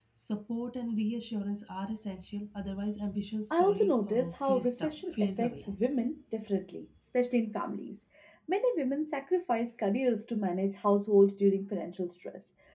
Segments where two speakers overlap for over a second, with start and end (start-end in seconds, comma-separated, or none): 3.5-5.6